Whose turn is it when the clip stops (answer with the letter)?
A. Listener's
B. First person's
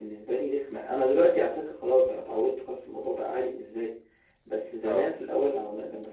B